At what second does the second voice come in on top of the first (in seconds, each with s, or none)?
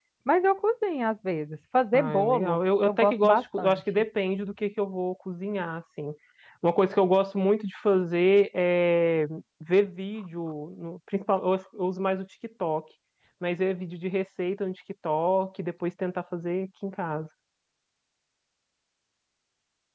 1.9 s